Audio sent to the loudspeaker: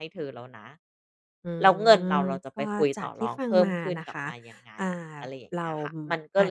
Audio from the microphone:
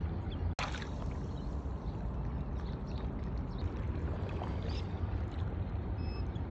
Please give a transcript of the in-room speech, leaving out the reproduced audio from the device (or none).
none